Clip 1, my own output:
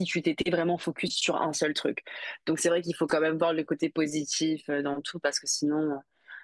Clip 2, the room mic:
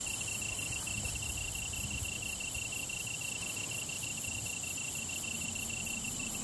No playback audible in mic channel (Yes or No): Yes